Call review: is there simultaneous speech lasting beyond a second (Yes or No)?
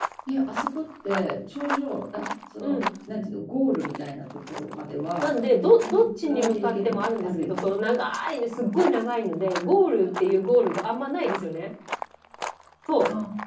Yes